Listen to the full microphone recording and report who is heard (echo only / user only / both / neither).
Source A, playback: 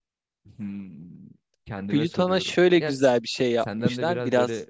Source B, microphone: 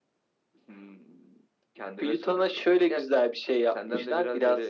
echo only